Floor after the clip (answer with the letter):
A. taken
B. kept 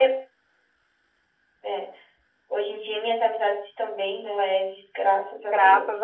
A